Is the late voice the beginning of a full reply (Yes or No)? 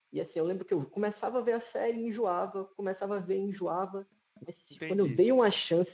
No